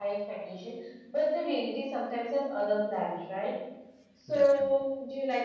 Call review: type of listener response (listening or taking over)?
listening